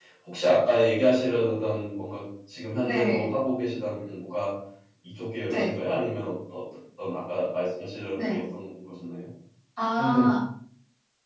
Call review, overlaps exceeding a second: none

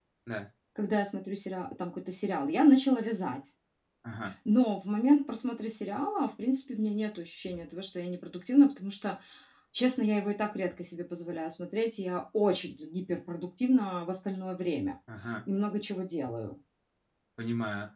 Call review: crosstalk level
none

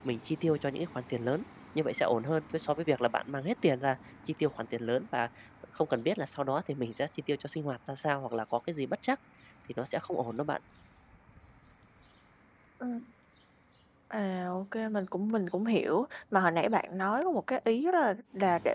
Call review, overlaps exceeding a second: none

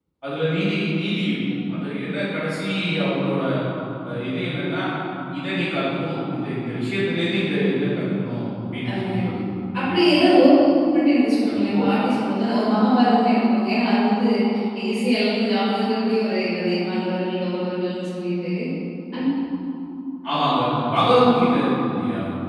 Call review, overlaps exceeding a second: none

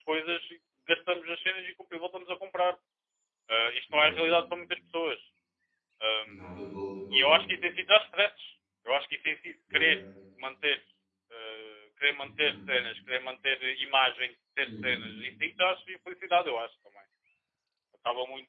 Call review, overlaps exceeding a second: none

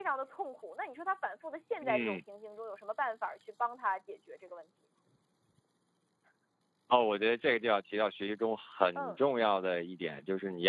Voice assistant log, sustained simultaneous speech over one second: none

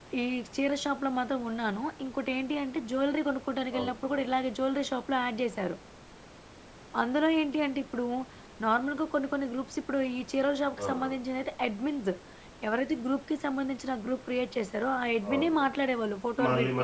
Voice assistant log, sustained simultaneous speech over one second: none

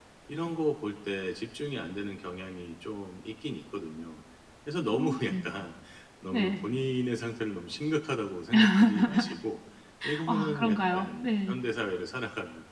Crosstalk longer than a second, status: present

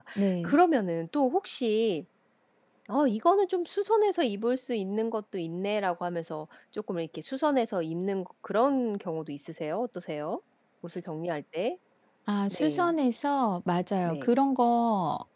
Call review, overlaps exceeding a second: none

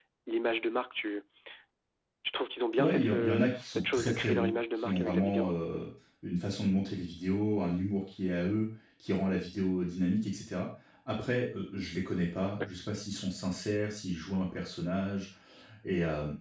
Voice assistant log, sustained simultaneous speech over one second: present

